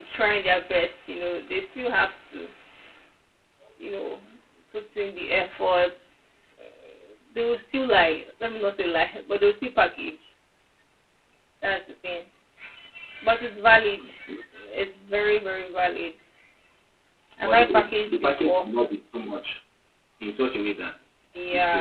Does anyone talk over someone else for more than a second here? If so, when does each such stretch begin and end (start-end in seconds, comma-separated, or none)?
17.4-18.7